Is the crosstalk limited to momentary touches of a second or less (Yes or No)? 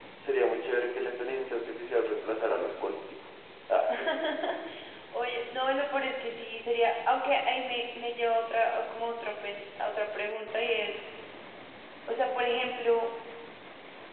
Yes